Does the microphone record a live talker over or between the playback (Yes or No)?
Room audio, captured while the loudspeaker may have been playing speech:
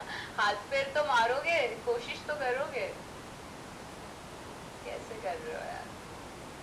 No